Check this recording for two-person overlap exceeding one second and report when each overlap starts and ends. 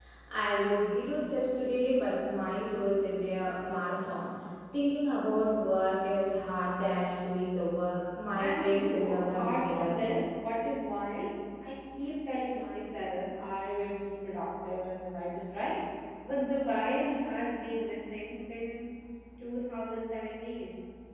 8.3-10.0

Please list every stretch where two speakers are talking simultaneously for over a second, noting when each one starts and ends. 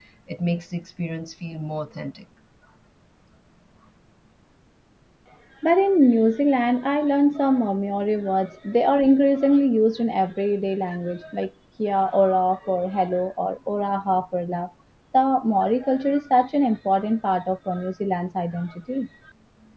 none

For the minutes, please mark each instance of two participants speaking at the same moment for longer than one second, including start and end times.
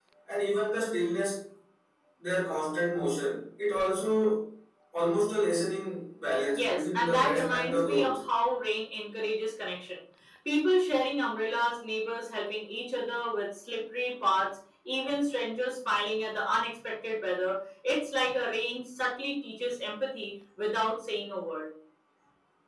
6.5-8.2

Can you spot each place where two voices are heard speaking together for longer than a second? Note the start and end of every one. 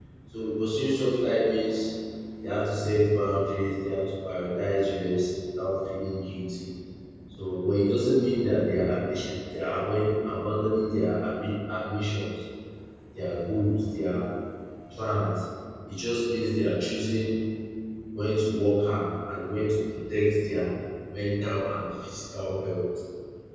none

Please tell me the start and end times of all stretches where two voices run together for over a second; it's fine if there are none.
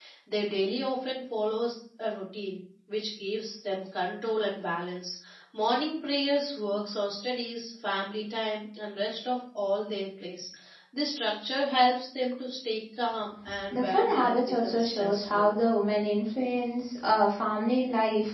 13.7-15.5

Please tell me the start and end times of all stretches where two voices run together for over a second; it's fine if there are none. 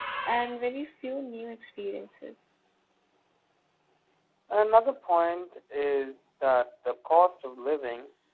none

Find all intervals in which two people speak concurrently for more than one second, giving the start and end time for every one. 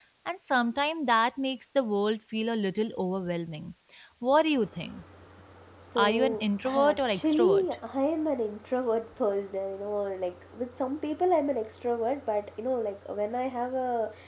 6.0-7.7

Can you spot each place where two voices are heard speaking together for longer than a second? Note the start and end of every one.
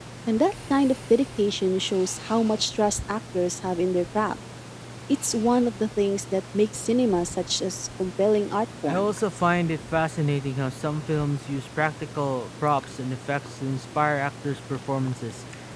none

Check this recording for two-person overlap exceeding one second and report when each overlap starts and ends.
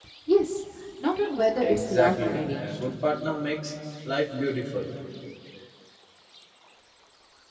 1.6-2.8

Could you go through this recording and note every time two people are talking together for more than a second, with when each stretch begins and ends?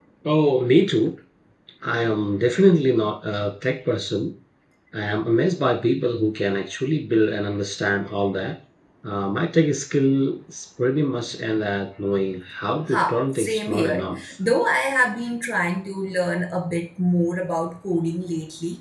12.9-14.2

